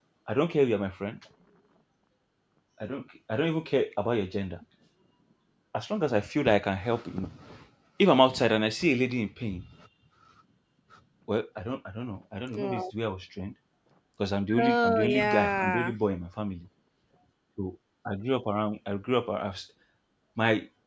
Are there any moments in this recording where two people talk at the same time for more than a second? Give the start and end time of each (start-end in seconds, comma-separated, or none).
14.6-15.9